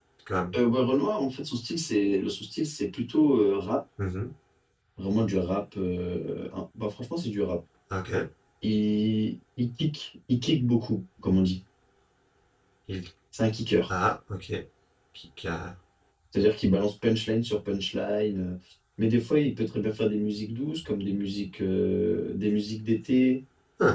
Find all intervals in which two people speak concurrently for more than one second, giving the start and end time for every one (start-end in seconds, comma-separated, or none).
none